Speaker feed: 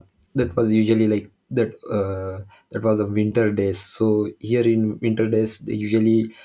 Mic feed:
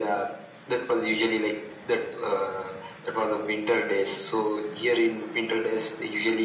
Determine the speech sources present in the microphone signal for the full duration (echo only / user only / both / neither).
echo only